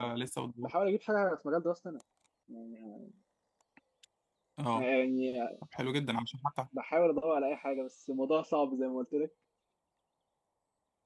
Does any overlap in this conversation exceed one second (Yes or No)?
No